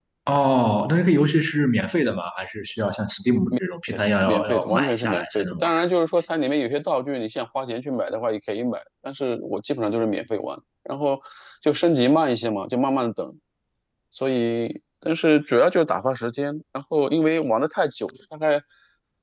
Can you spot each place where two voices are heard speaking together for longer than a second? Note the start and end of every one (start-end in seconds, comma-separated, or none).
4.2-5.7